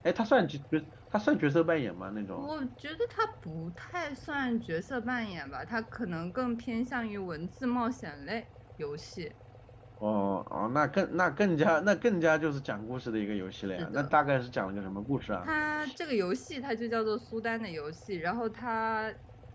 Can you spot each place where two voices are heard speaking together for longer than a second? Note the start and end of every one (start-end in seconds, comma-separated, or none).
none